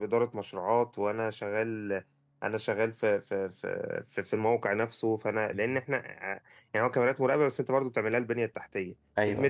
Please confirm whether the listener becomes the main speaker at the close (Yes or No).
No